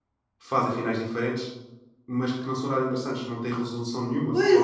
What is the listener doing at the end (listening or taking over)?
taking over